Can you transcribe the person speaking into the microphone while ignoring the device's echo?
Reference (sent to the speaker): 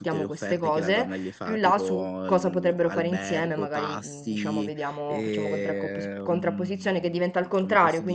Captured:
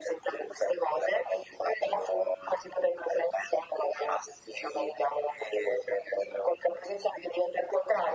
none

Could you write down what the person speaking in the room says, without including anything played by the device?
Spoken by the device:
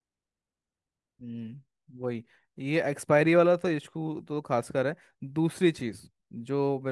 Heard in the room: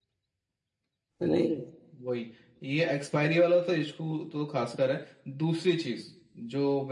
नहीं

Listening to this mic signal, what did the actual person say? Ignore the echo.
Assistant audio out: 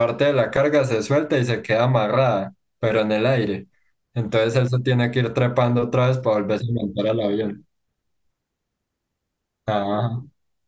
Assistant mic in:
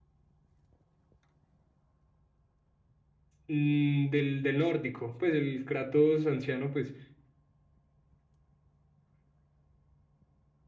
mm, del, del nórdico, pues el Kratos anciano, pues,

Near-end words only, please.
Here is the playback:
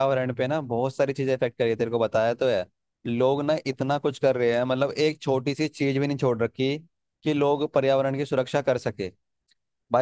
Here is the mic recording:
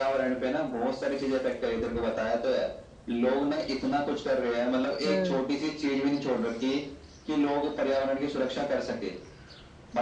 हम्म

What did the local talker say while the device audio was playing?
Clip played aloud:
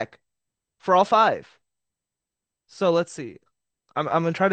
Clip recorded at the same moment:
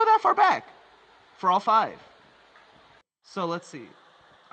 none

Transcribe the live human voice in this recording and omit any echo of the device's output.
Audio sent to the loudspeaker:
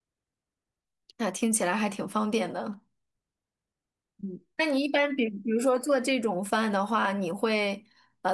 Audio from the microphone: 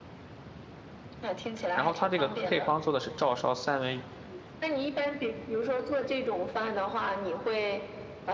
然后它这个配方做的是照烧三文，

